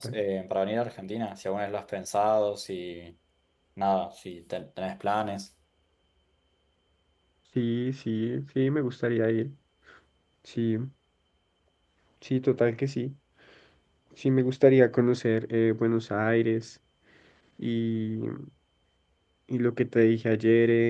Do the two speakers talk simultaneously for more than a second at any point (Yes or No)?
No